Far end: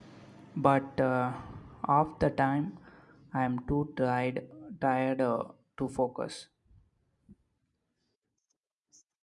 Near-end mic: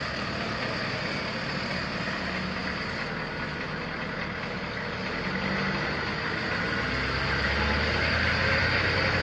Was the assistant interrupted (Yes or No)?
No